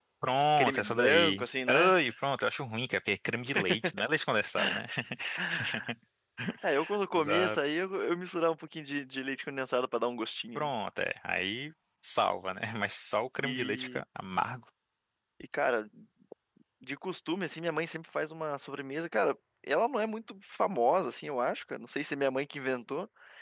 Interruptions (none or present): present